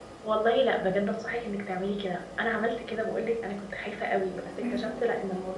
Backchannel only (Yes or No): Yes